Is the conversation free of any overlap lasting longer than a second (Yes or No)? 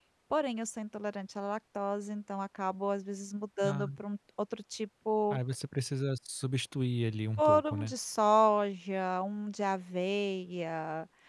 Yes